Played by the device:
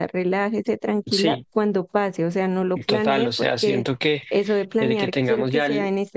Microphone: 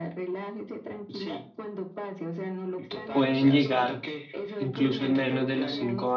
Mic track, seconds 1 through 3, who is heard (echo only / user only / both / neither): echo only